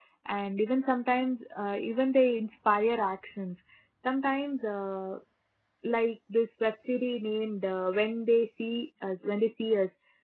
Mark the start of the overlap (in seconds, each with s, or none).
none